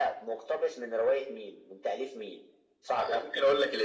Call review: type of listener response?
taking over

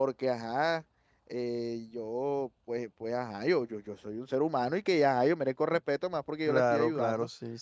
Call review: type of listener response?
taking over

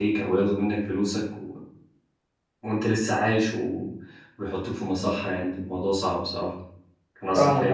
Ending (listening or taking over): taking over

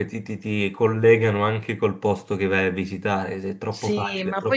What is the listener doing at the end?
taking over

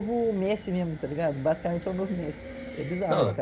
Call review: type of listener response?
taking over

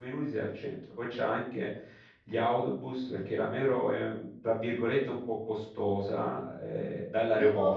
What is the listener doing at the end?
listening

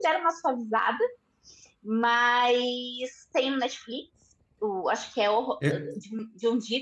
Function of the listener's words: listening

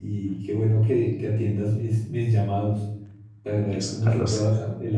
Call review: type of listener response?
listening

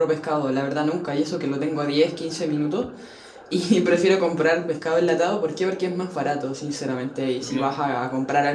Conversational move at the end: listening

